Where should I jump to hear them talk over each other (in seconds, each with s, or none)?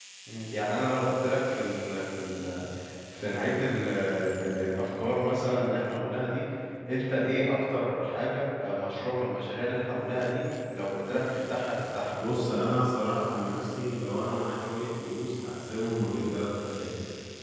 none